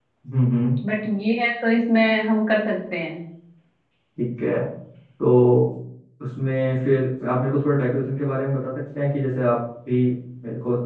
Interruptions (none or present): none